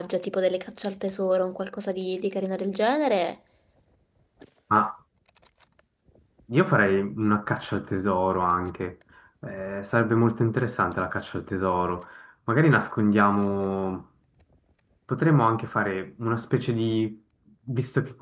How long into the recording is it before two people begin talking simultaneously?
none

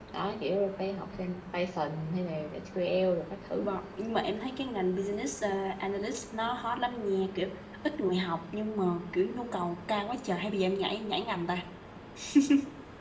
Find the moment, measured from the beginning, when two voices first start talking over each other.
none

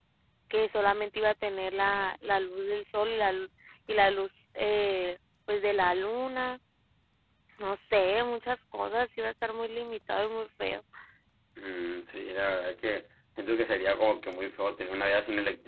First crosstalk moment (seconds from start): none

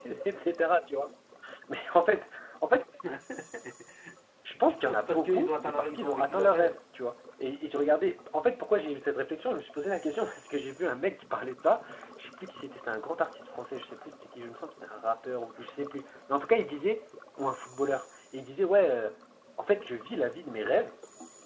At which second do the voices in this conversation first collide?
4.7 s

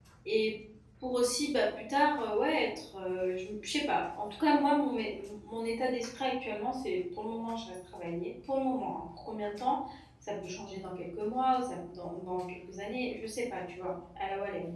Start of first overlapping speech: none

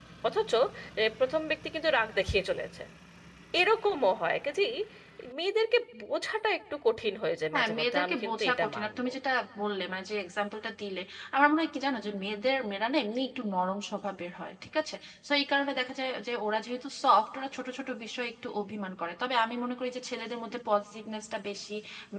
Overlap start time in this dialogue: 7.5 s

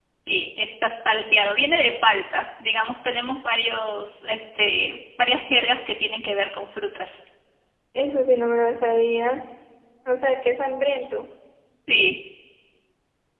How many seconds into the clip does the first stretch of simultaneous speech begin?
none

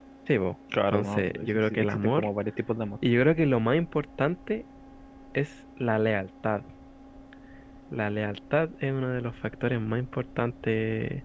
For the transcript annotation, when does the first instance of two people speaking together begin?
0.9 s

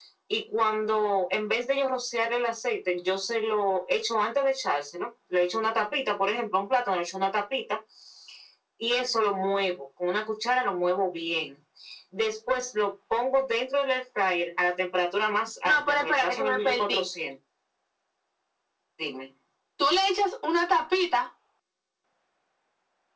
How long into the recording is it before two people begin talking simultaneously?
15.7 s

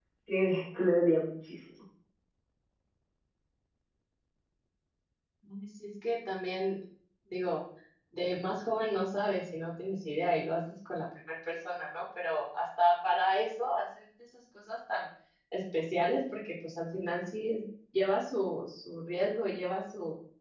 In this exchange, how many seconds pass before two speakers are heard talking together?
none

